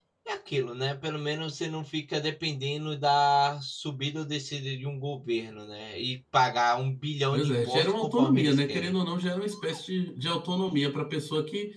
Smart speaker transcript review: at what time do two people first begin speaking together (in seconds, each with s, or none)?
7.3 s